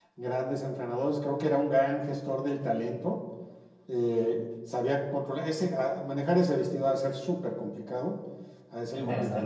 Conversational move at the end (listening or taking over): taking over